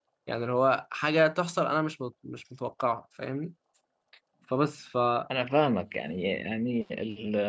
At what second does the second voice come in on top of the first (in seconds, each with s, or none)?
none